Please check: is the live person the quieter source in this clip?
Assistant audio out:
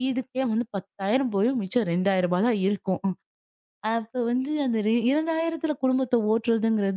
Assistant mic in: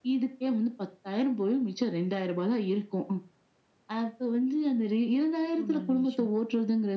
Yes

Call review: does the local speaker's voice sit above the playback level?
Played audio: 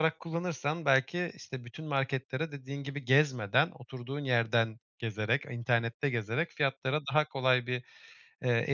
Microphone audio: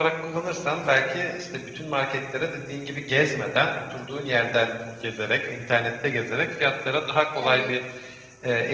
No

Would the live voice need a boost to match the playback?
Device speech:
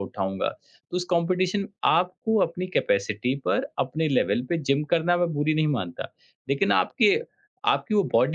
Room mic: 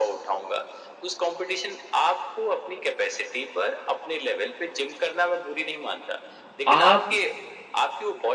No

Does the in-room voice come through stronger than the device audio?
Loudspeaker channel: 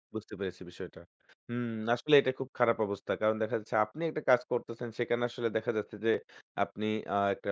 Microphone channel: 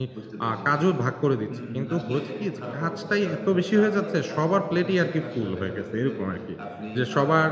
Yes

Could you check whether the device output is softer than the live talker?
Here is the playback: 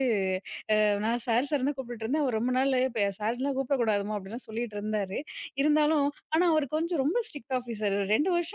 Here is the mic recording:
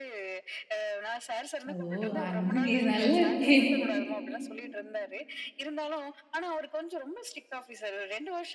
Yes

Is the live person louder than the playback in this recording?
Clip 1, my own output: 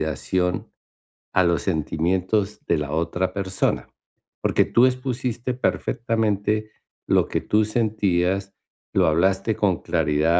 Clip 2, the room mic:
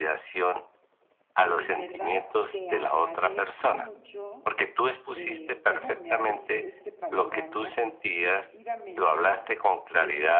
No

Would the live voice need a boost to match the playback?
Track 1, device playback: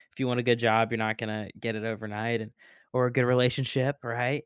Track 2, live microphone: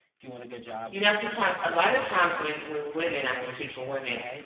No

